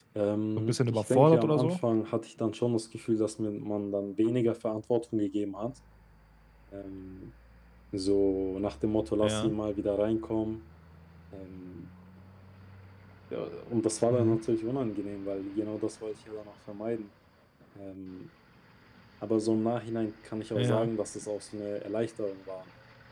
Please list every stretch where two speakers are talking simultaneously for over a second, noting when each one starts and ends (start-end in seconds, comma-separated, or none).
0.6-1.8